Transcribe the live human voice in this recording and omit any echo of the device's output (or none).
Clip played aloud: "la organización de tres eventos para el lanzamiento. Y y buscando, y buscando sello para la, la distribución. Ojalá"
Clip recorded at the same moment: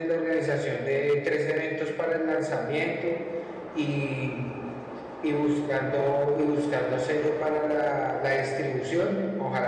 none